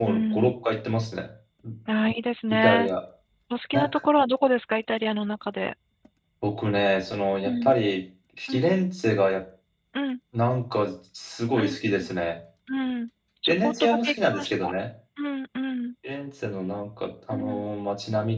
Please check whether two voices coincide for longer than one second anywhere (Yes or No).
Yes